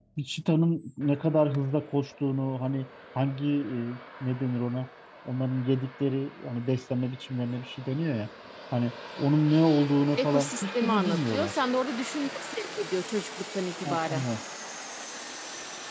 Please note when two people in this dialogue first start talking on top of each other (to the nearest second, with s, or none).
10 s